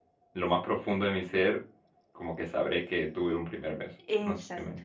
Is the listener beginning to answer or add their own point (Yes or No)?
Yes